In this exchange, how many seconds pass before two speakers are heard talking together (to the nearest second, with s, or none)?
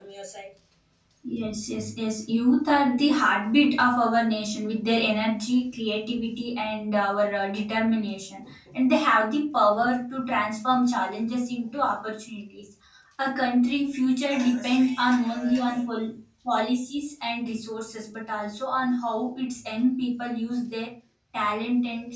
14 s